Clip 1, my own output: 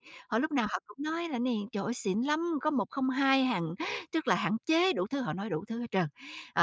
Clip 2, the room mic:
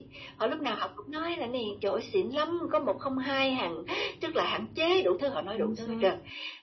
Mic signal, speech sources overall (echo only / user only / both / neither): both